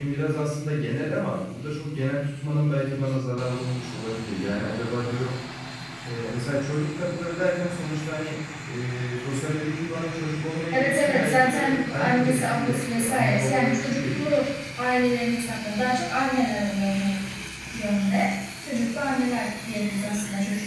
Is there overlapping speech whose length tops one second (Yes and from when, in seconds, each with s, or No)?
Yes, from 10.7 s